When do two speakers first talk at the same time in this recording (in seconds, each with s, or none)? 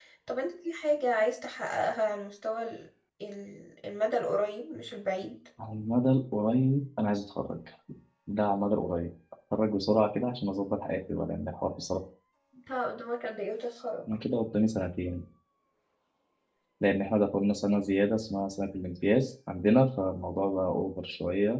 none